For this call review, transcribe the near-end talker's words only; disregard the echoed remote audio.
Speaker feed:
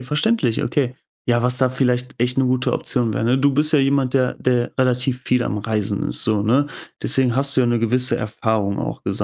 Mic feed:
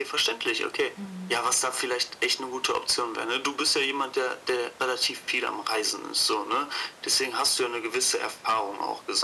Mhm.

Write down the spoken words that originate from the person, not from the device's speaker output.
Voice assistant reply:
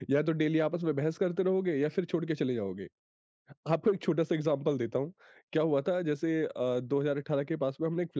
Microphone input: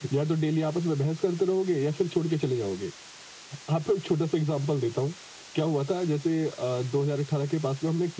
none

